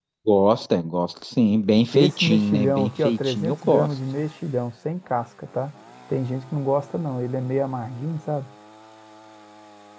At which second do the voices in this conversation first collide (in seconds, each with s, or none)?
1.9 s